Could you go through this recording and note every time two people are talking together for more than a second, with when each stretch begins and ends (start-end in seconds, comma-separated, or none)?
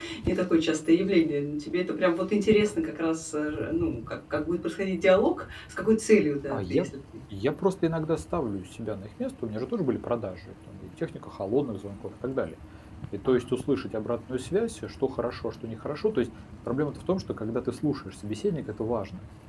none